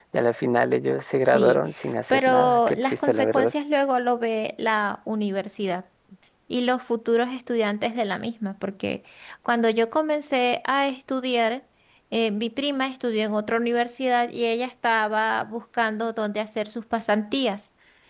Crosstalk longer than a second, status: present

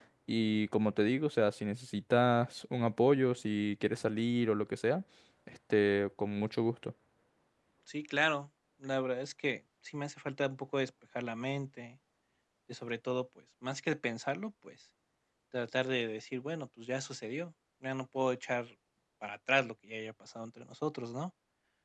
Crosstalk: none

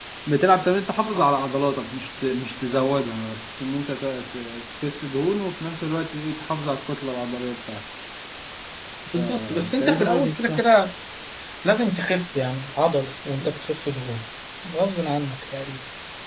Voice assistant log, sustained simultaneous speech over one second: present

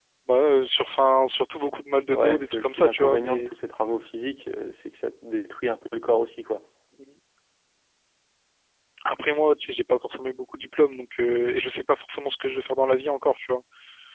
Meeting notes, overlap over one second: present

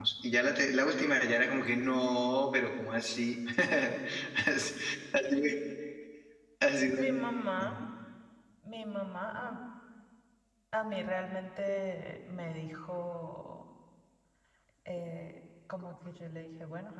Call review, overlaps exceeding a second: none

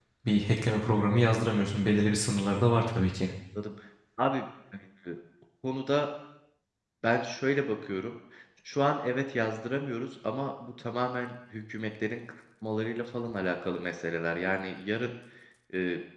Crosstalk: none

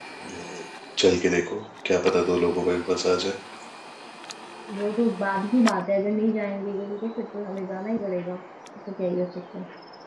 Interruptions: none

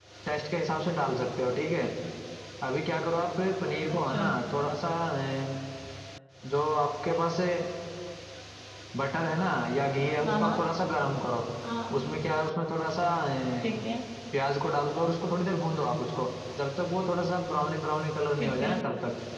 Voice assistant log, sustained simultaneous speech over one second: none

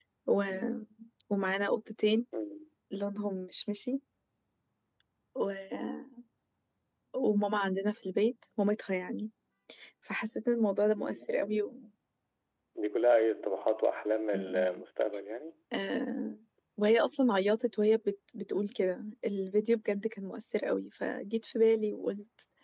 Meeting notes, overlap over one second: none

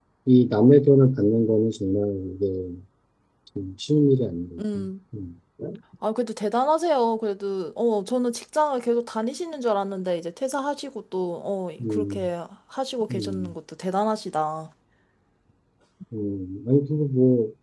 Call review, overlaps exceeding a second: none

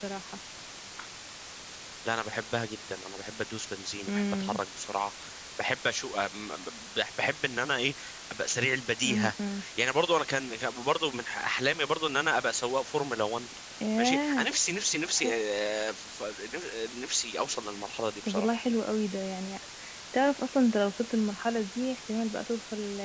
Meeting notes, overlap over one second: none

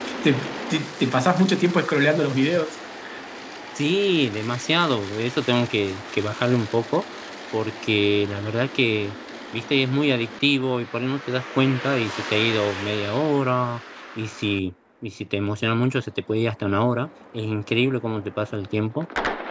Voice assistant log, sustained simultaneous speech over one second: none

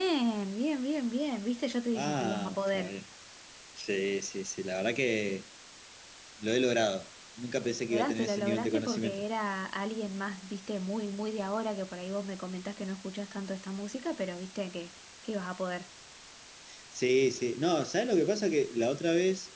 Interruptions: present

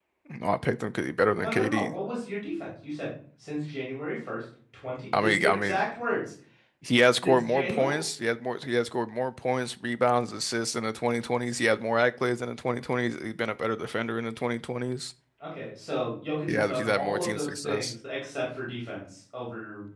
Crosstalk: present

